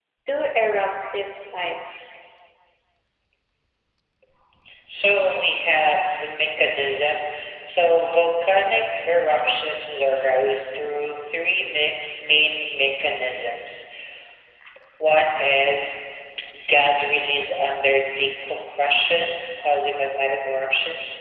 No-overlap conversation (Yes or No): Yes